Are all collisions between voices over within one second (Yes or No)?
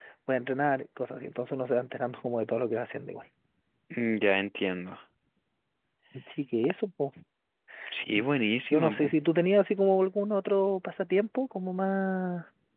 Yes